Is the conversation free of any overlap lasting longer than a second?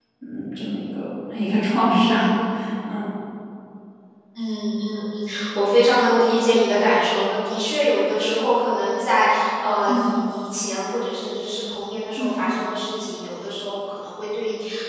Yes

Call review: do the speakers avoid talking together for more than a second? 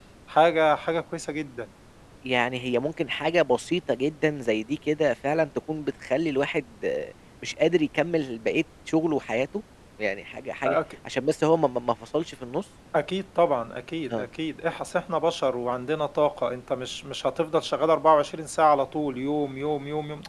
Yes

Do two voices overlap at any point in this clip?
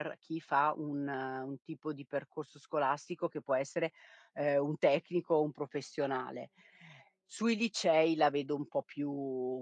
No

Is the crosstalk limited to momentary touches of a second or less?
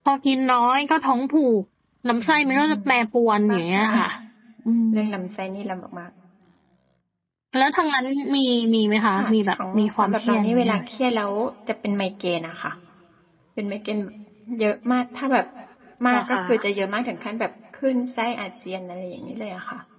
No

